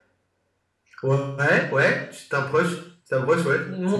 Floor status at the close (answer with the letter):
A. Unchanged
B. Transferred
B